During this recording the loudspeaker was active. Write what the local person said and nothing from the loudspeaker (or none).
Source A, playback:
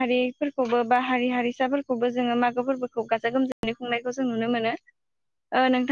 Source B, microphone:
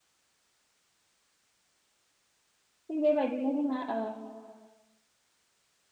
थिग बेबाय दिनो जोंना ओ